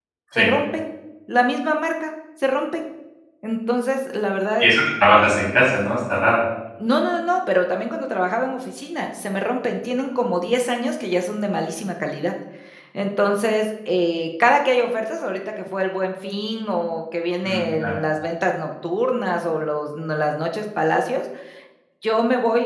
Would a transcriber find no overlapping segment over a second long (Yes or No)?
Yes